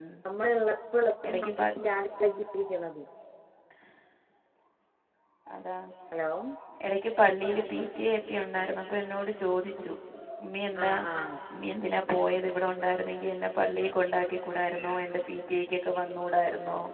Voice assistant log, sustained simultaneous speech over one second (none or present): none